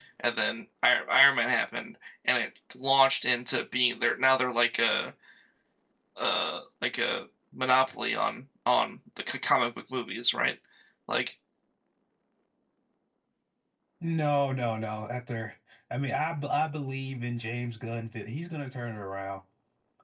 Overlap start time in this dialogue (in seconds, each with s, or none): none